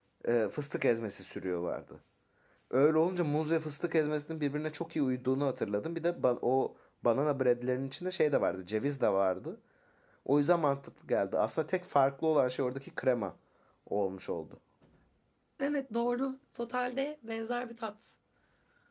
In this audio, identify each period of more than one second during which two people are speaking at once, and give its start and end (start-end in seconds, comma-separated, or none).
none